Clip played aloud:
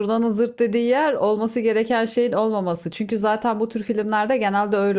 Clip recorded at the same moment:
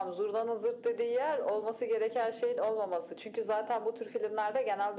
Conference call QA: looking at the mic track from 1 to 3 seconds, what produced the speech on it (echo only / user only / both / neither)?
echo only